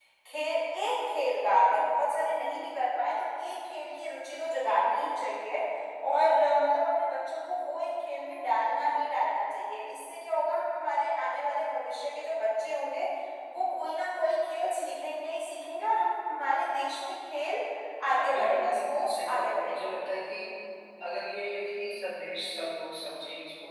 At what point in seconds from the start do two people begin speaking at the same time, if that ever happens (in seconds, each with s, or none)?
18.1 s